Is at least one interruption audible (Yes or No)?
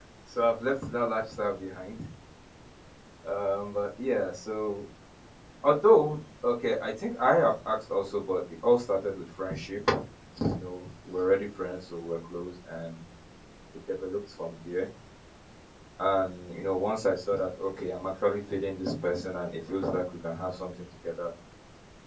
No